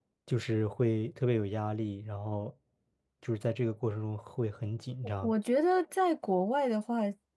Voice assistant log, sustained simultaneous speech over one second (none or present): none